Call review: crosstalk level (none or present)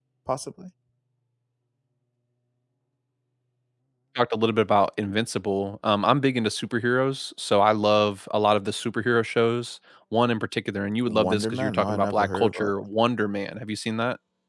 present